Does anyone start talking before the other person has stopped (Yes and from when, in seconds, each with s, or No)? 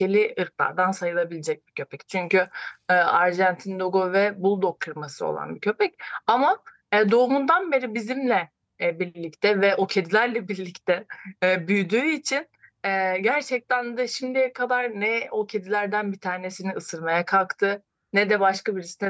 No